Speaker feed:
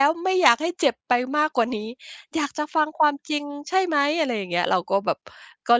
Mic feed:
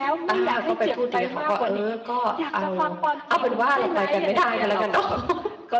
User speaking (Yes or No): Yes